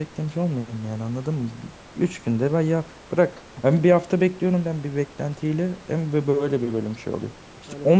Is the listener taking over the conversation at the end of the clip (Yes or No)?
No